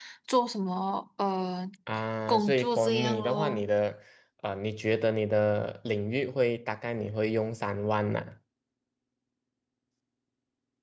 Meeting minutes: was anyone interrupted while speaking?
Yes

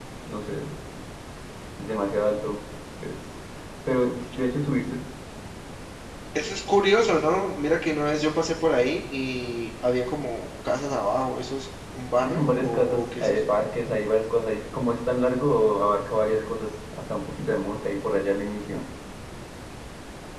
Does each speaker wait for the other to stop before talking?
No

